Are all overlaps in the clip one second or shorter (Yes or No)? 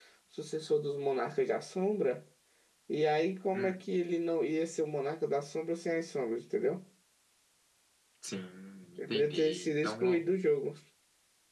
No